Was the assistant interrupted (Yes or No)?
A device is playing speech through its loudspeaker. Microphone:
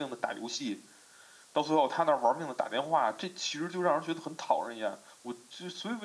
Yes